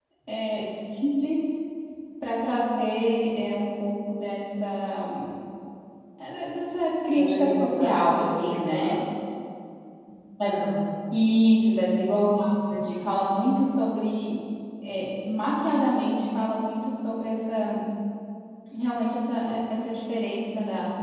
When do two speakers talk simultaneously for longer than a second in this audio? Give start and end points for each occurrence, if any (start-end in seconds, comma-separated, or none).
7.1-9.0